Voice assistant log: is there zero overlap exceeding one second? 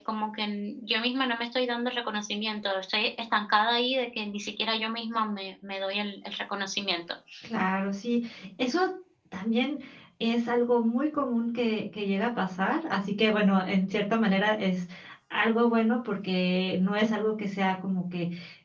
Yes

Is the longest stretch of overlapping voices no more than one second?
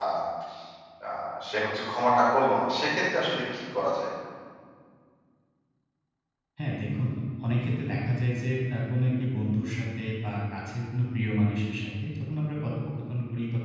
Yes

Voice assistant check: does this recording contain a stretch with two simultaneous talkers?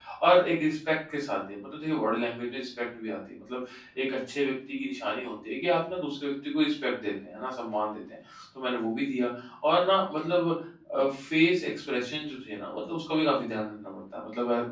No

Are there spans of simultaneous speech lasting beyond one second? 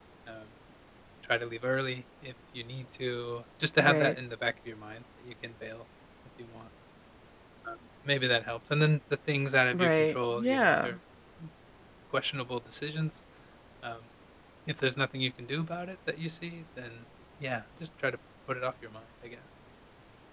Yes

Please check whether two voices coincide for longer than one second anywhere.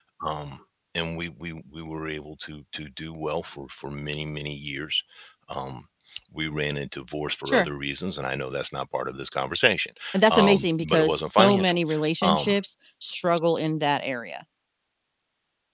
Yes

